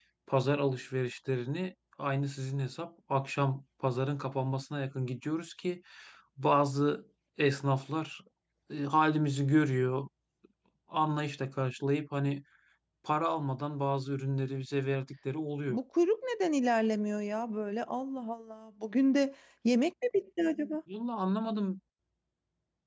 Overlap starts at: none

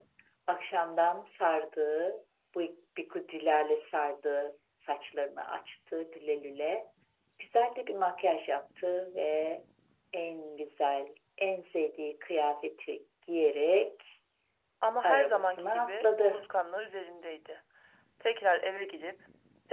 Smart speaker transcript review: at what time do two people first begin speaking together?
15.0 s

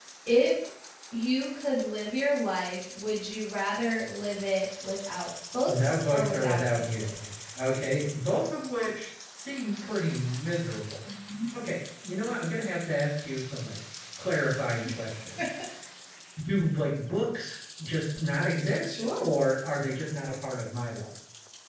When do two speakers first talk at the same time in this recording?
5.7 s

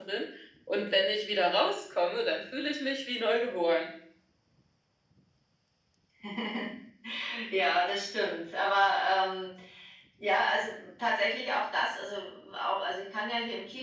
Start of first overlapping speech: none

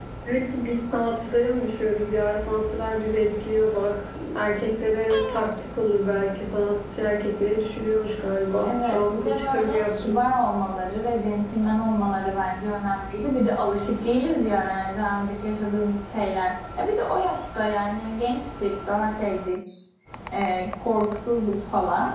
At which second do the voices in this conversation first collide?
8.6 s

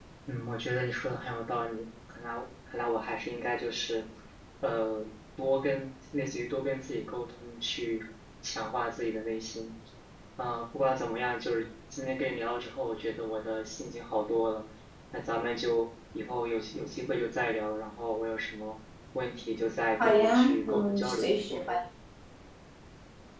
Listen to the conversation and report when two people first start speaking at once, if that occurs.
20.0 s

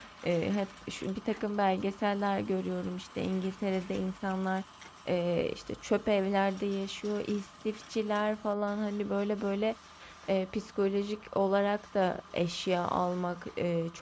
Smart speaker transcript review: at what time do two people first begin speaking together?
none

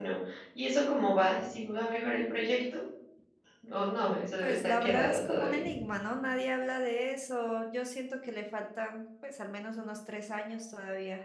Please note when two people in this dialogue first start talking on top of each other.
4.4 s

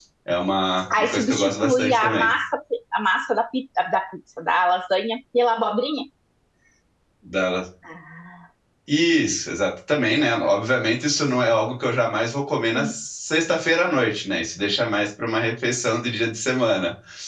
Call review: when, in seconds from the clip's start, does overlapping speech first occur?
1.0 s

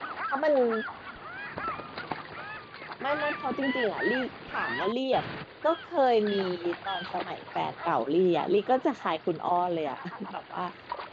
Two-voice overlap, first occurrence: none

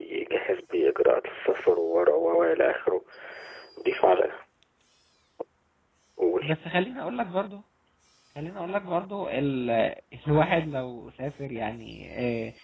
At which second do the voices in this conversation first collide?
none

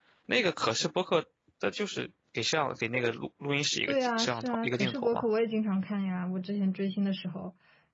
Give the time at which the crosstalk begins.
3.9 s

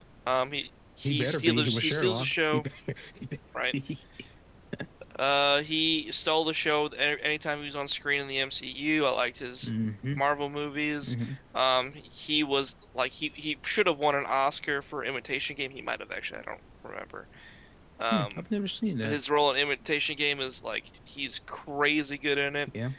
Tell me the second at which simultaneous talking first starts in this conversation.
1.0 s

